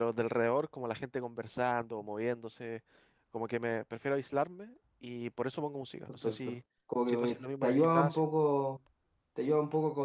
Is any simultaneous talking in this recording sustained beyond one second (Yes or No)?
Yes